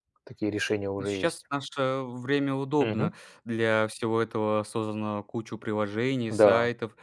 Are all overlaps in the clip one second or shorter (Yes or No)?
Yes